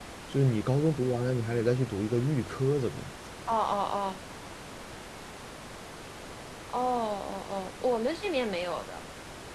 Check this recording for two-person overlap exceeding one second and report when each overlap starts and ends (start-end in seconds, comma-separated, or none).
none